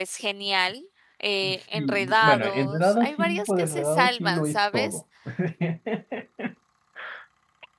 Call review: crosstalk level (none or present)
present